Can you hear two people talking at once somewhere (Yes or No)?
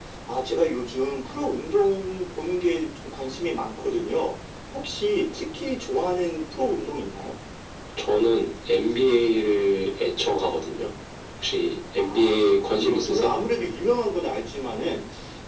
Yes